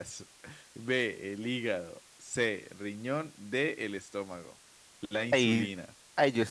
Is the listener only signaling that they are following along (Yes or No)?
No